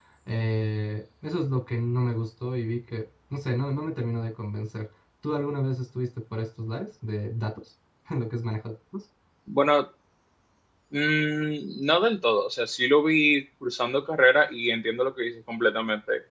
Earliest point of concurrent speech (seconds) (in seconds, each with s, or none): none